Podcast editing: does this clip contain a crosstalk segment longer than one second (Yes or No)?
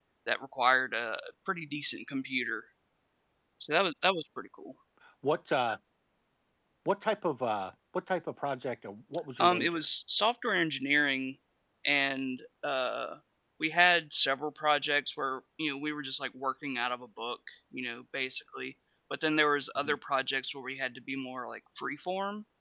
No